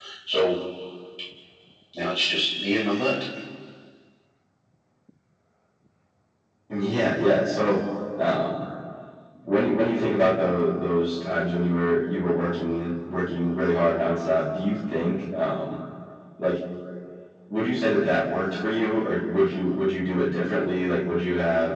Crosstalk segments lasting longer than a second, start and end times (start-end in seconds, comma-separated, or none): none